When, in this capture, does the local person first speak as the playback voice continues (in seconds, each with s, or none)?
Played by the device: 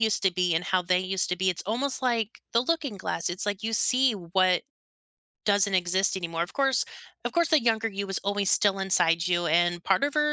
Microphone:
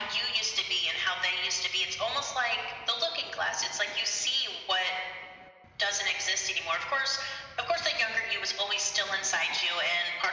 none